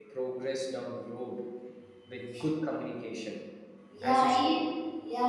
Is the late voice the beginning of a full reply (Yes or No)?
Yes